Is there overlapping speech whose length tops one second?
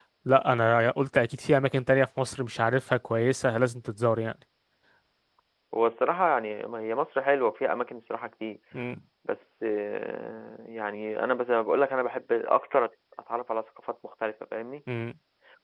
No

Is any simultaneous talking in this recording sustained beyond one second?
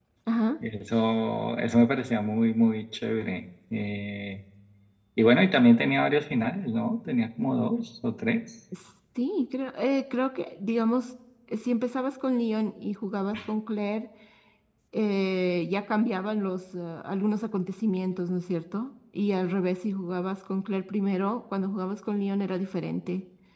No

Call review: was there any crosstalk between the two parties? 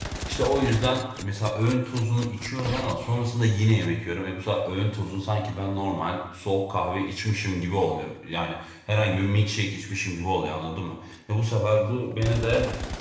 No

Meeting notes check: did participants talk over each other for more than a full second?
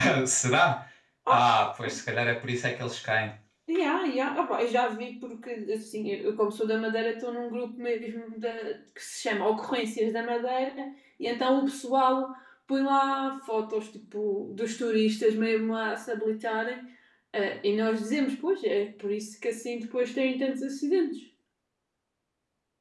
No

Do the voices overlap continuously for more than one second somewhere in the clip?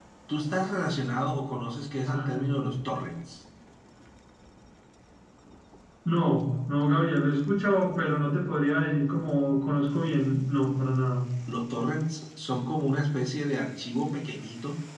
No

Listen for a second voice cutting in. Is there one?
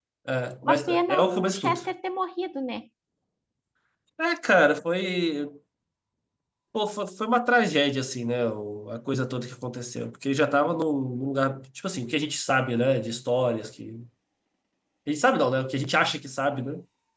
Yes, from 0.6 s

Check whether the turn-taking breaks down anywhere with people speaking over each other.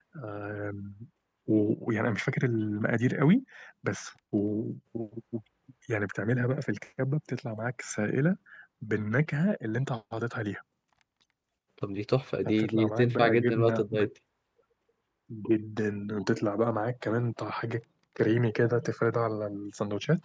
Yes, from 12.5 s

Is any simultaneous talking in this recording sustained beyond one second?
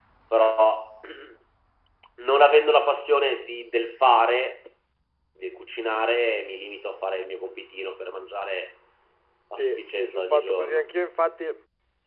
Yes, from 9.6 s

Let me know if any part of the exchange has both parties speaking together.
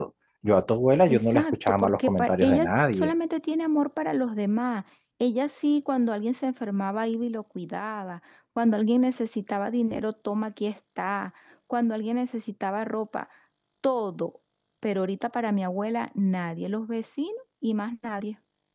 Yes, from 1.1 s

